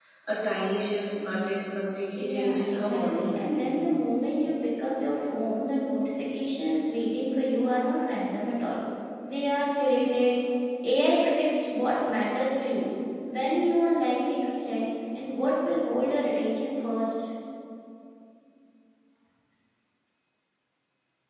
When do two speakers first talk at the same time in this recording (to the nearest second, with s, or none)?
2 s